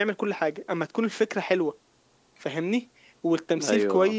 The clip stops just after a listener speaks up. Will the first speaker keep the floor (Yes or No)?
Yes